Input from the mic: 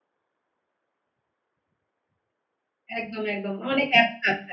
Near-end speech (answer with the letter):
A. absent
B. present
B